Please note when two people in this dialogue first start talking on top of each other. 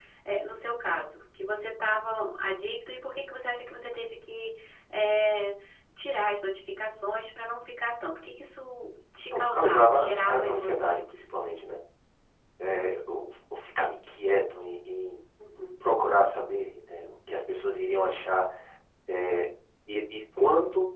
9.3 s

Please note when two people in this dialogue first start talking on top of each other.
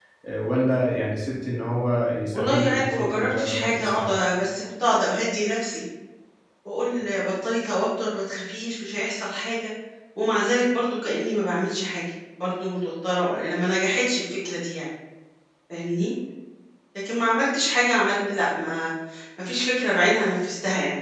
2.3 s

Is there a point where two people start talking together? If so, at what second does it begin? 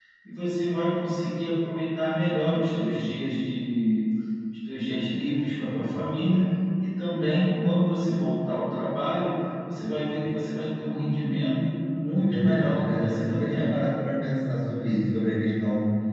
12.2 s

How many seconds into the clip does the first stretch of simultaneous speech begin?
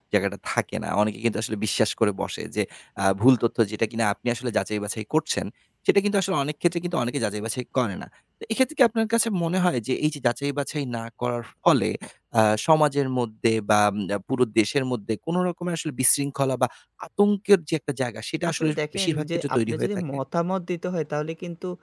18.5 s

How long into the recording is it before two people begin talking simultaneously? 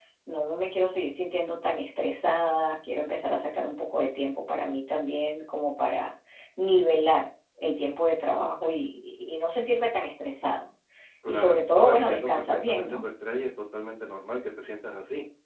11.3 s

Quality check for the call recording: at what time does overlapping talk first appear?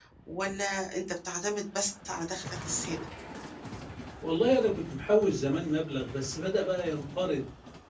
none

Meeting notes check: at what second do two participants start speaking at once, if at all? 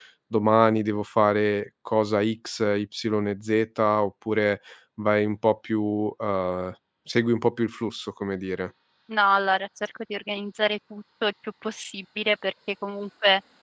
none

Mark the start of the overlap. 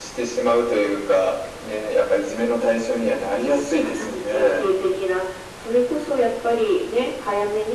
3.4 s

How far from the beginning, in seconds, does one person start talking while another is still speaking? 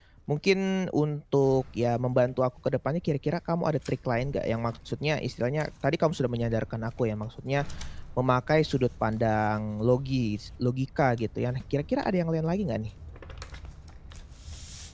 none

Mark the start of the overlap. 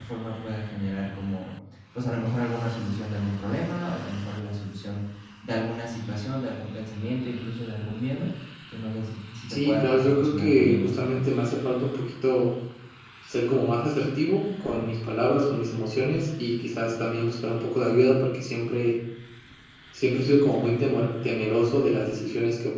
9.5 s

